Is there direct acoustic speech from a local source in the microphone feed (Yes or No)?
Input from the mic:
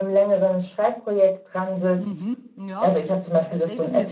Yes